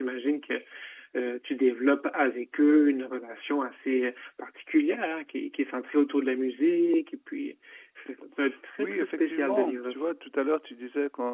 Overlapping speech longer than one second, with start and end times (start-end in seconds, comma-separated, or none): 8.8-10.1